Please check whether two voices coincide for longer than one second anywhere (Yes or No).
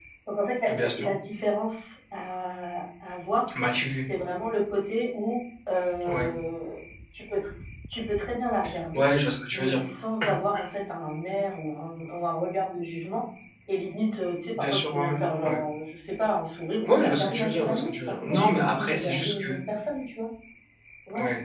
Yes